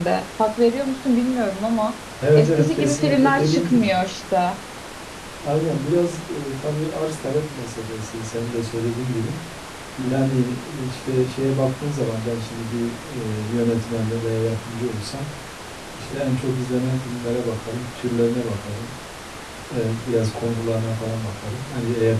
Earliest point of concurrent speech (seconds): 2.4 s

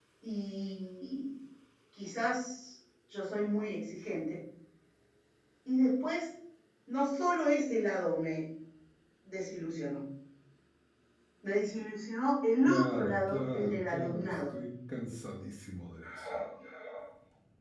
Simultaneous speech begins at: 12.7 s

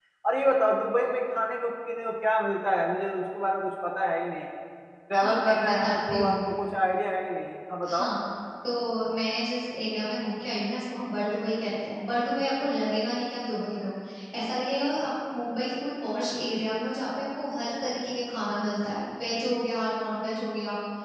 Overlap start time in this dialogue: 5.1 s

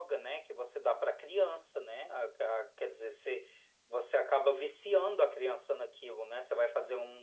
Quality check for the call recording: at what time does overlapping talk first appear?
none

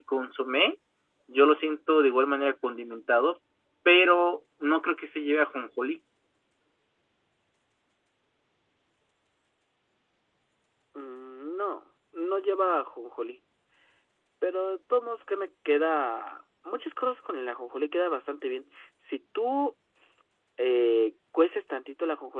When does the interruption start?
none

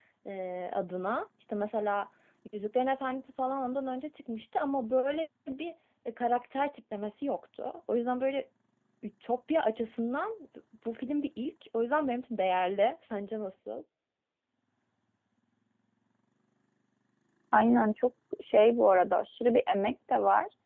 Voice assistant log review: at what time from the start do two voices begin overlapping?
none

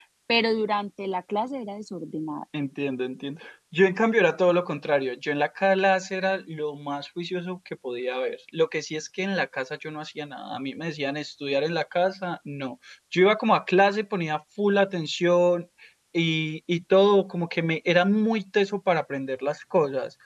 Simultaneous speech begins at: none

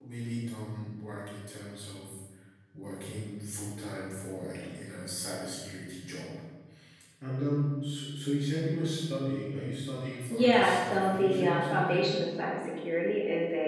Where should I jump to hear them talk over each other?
10.3 s

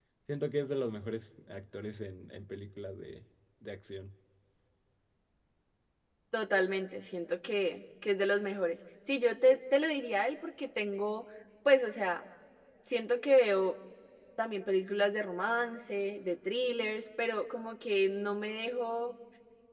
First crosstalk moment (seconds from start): none

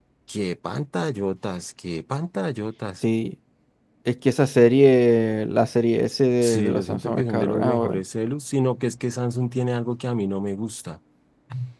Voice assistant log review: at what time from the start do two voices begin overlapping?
6.4 s

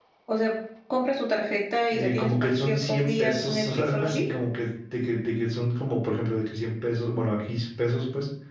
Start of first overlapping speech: 1.9 s

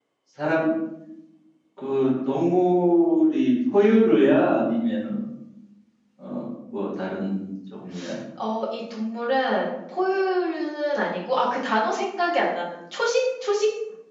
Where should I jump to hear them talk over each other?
none

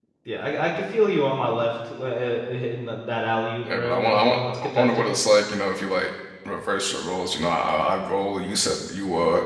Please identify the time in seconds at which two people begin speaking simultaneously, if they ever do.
3.6 s

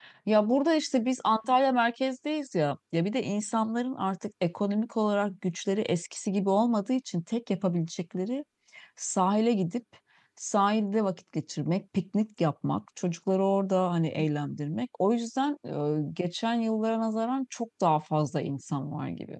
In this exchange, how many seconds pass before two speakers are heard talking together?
none

